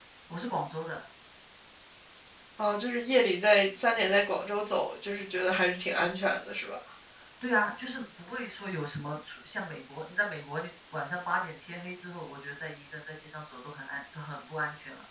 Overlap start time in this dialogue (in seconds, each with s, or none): none